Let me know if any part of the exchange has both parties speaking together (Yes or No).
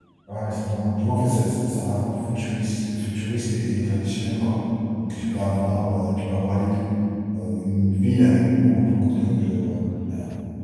No